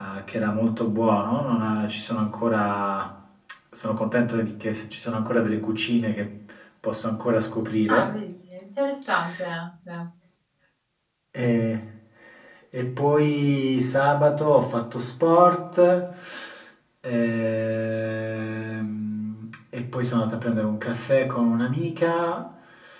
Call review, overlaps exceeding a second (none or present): none